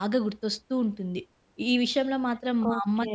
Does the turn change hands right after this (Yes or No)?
No